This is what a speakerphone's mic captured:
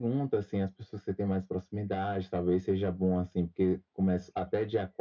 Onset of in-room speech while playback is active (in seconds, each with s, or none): none